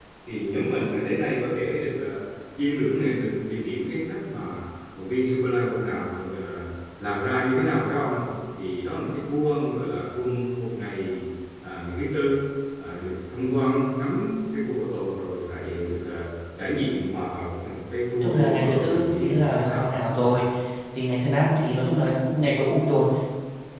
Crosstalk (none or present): present